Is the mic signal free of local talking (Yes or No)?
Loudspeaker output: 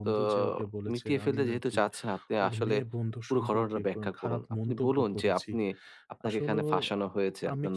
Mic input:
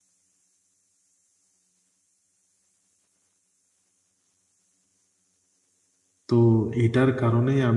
No